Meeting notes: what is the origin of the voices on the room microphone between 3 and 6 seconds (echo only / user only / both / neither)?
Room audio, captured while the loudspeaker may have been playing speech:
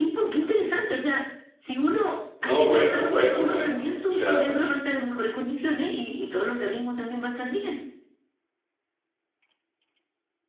both